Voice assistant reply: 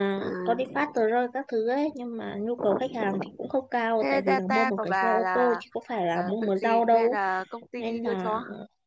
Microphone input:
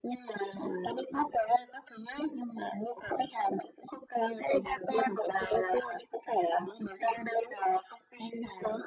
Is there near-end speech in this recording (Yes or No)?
No